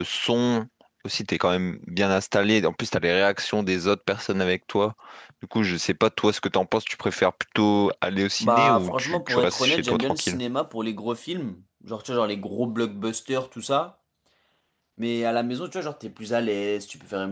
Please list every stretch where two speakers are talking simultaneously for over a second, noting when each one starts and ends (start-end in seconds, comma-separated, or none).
8.4-10.4